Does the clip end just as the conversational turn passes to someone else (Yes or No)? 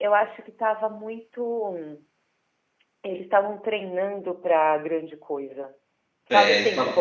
Yes